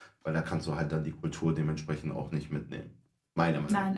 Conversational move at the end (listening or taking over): taking over